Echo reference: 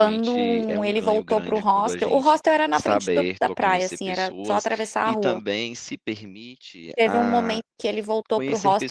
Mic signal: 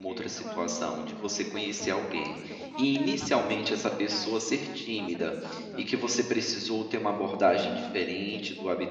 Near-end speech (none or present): present